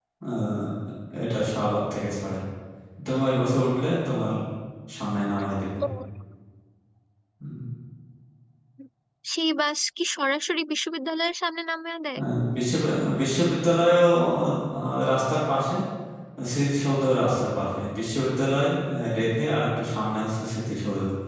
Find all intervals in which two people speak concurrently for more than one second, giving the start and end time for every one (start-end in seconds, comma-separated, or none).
none